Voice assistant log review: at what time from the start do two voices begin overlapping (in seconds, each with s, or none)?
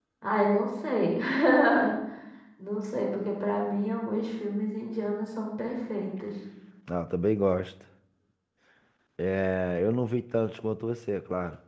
none